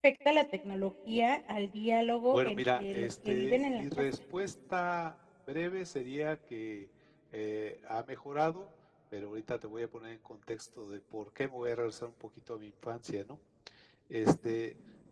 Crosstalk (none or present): present